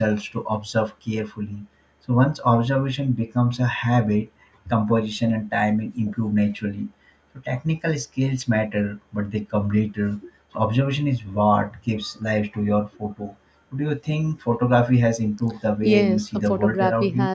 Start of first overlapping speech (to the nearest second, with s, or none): 16 s